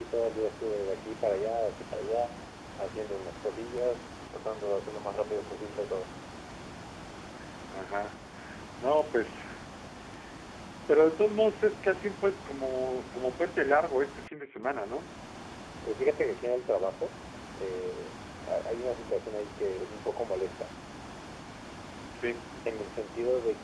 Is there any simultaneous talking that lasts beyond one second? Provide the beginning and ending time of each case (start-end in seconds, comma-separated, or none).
none